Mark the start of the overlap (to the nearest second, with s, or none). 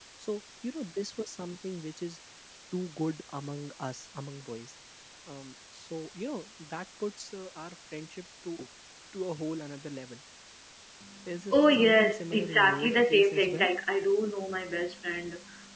12 s